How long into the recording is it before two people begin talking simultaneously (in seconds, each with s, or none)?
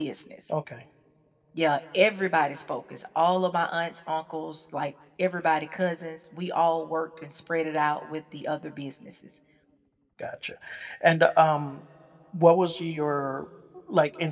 none